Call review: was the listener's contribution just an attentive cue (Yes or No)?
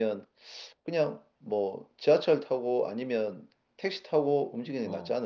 No